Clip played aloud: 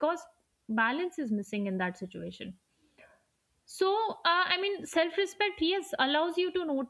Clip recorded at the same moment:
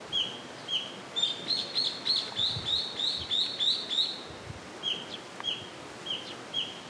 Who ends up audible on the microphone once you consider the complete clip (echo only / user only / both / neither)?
neither